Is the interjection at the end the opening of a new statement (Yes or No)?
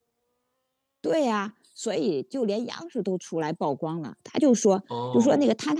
No